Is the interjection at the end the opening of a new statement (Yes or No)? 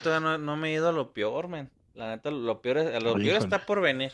No